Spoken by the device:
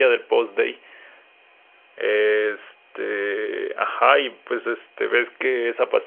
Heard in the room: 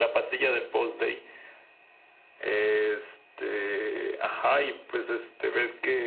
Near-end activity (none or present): none